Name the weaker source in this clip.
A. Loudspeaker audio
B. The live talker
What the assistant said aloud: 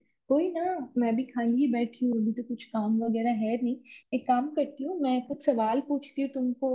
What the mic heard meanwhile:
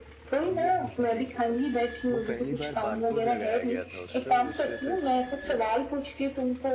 B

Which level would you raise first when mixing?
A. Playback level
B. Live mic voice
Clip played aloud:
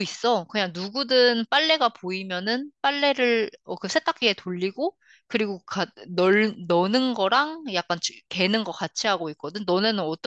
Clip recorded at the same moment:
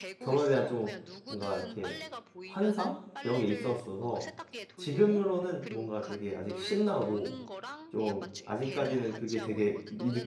A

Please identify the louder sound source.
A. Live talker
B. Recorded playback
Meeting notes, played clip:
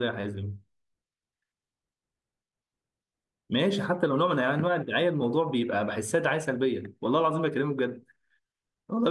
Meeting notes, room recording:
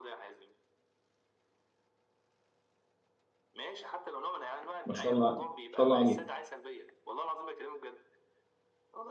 A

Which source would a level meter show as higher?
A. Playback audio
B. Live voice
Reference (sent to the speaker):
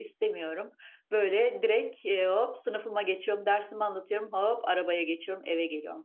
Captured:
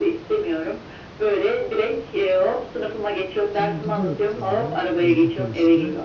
A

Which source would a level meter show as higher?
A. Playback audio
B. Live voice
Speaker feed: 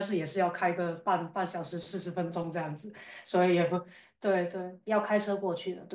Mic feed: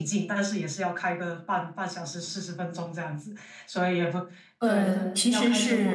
B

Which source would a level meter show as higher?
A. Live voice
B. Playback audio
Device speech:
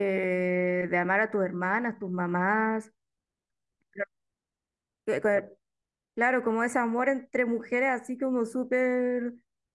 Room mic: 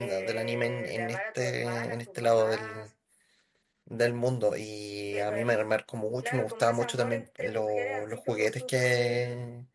A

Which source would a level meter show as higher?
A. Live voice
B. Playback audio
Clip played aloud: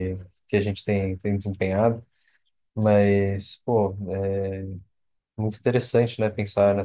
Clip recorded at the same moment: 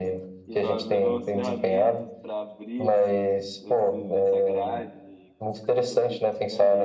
B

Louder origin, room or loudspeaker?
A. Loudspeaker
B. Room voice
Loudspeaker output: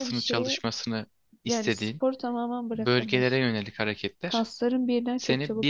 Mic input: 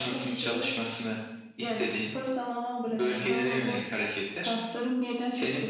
A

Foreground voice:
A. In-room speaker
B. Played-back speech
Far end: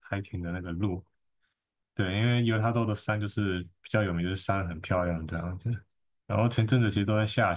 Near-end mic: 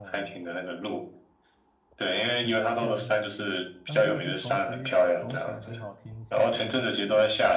B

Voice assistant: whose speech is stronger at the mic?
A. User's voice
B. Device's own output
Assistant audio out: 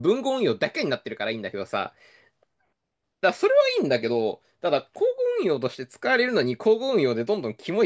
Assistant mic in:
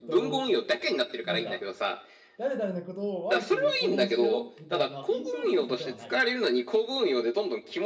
B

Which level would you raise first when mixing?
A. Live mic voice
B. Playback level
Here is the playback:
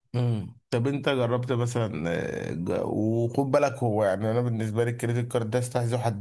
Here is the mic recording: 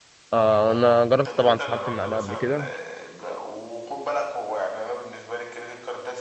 B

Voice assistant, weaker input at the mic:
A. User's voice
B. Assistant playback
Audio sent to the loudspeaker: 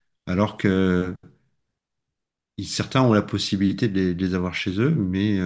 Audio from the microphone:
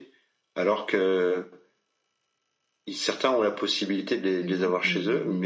A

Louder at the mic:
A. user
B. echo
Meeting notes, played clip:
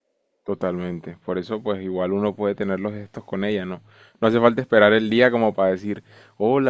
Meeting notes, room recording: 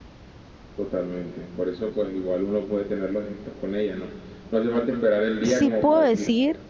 A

